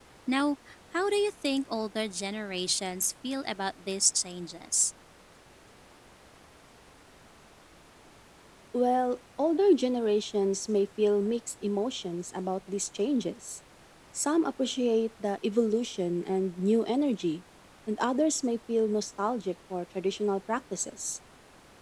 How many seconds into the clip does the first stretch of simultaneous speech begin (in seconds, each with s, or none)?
none